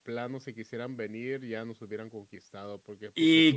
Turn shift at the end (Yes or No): Yes